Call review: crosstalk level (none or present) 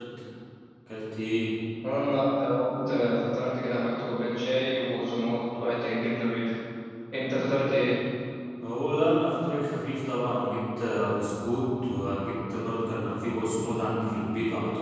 none